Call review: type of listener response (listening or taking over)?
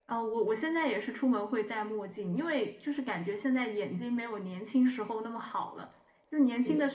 listening